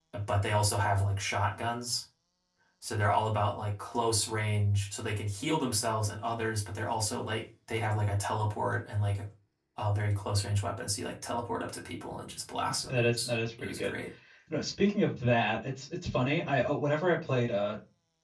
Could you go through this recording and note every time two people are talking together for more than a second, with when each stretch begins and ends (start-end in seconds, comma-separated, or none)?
12.7-14.0